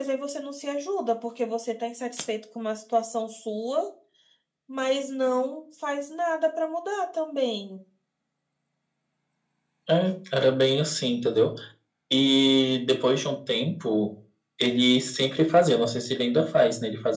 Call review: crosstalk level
none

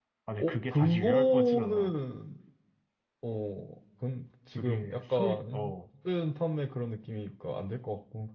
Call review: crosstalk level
present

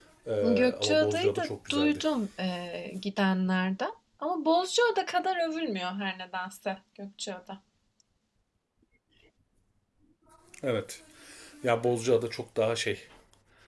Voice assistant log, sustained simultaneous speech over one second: present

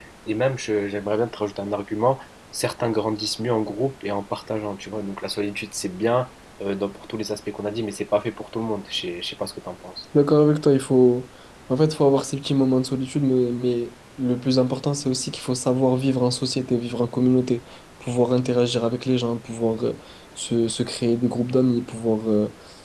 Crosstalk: none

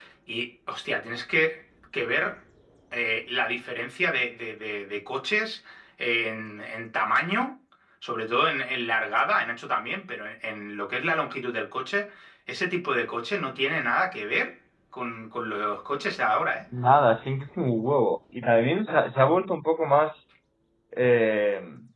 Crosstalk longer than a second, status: none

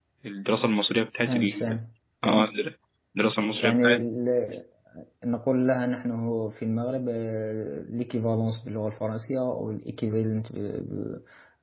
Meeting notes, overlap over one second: none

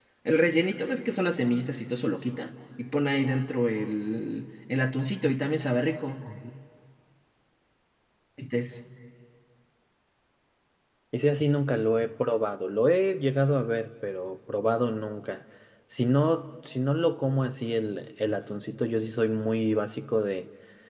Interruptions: none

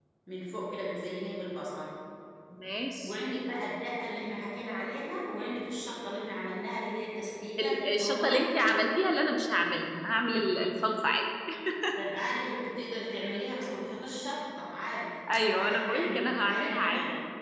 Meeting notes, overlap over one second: present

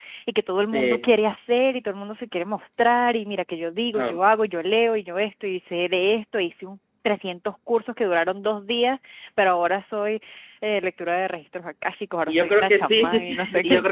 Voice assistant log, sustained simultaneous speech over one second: present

